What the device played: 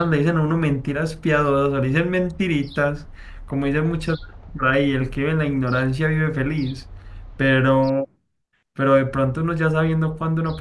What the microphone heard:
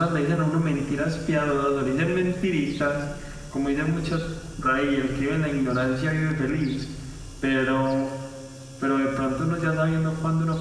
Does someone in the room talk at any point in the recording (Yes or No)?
No